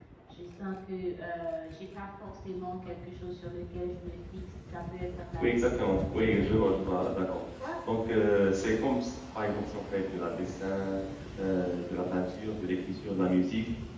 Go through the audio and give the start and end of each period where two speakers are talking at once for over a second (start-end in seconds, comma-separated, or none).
5.4-6.8